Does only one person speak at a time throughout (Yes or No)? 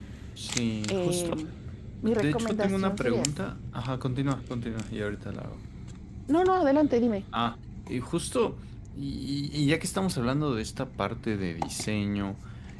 No